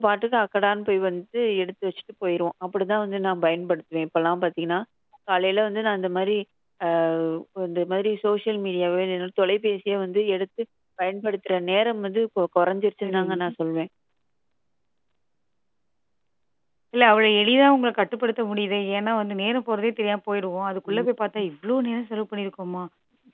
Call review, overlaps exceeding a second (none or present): none